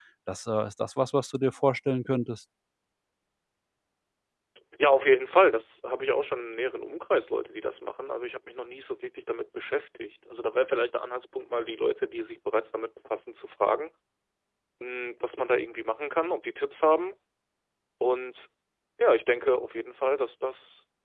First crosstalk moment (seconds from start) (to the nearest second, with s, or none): none